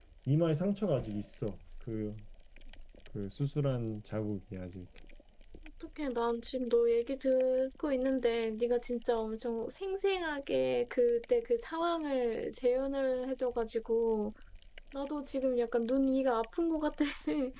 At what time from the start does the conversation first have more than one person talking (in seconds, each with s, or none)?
none